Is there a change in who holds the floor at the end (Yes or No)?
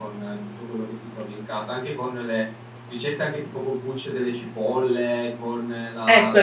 Yes